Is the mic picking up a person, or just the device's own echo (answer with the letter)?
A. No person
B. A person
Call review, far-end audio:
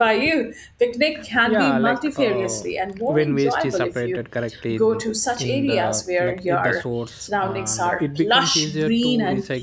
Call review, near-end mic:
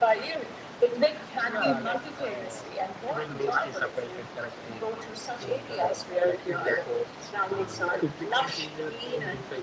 A